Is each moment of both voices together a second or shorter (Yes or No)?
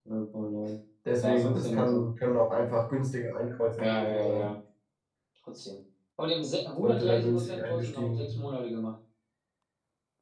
No